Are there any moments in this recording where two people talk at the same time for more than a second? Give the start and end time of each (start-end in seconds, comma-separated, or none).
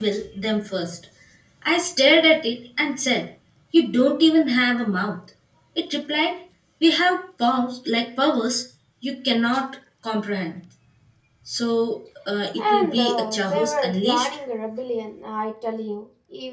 12.6-14.3